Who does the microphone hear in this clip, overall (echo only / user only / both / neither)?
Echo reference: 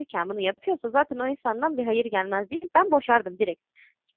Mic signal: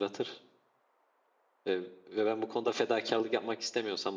user only